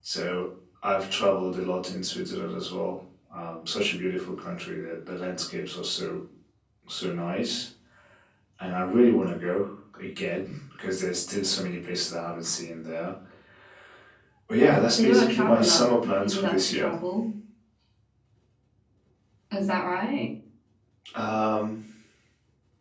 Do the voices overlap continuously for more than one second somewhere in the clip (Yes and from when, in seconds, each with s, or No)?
Yes, from 15.0 s